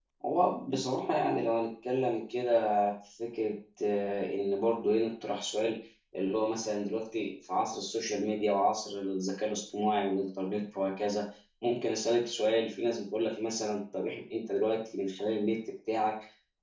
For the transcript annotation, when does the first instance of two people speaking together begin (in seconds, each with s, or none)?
none